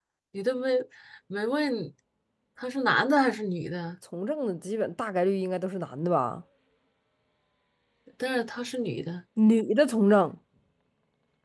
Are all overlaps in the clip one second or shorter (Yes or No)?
Yes